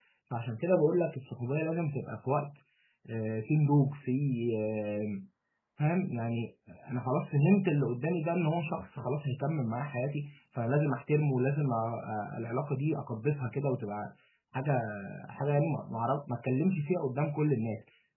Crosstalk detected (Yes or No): No